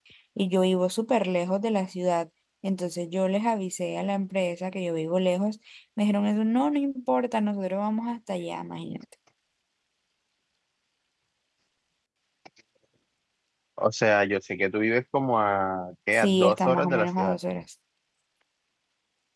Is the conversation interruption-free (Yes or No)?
No